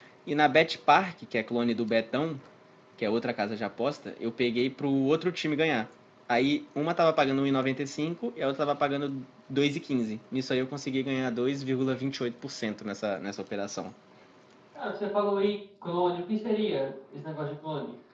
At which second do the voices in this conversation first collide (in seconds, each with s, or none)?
none